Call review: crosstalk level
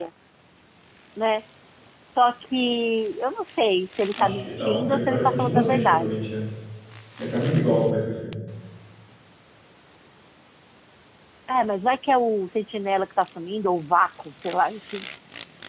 present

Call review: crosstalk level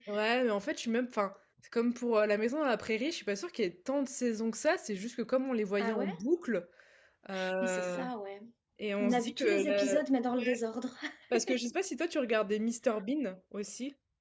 present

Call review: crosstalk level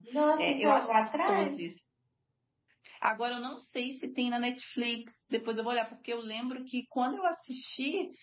present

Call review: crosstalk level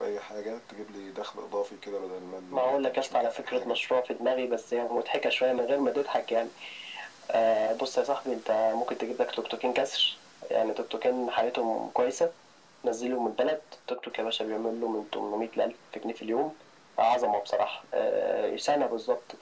present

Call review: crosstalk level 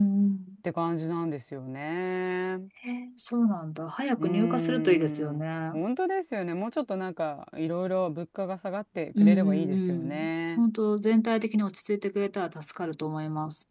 present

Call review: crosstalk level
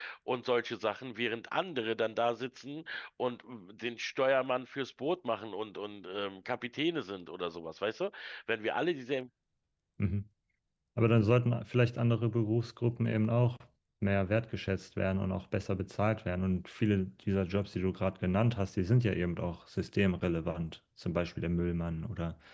none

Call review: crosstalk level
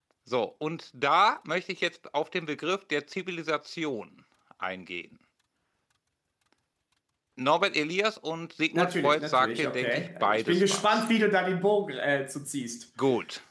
present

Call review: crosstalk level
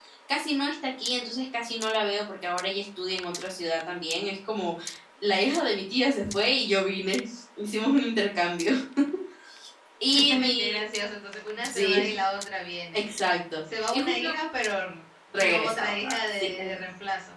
present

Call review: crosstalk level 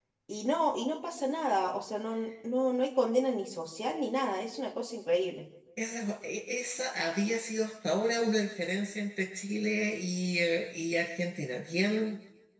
none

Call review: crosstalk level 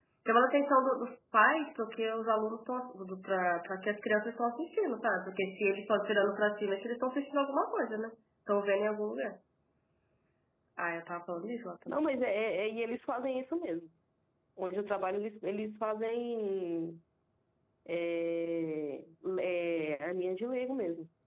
none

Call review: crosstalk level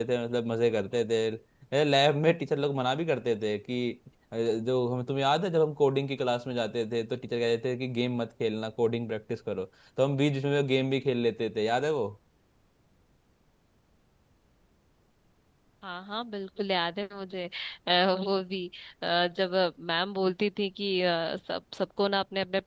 none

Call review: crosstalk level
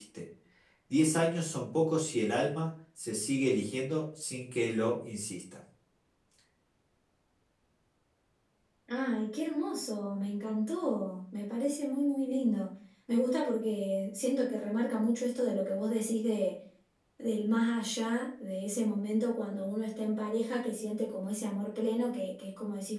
none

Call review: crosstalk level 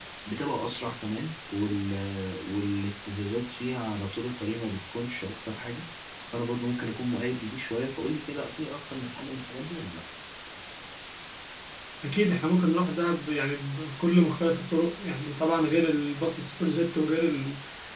none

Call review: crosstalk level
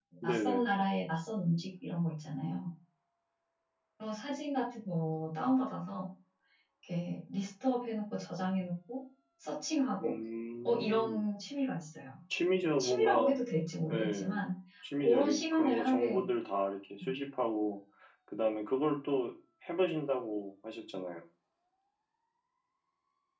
present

